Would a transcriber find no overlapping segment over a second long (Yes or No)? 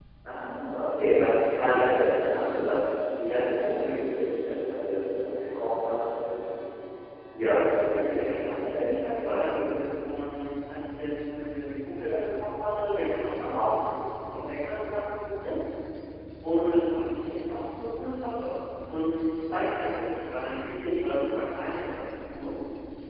No